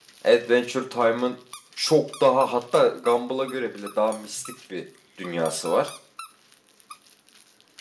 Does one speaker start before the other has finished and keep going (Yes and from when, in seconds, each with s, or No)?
No